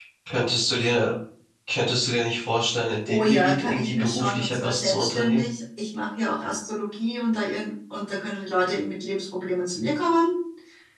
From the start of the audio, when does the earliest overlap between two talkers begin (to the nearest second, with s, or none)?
3 s